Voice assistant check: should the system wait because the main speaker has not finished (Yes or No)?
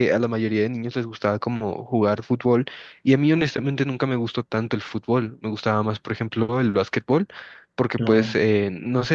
Yes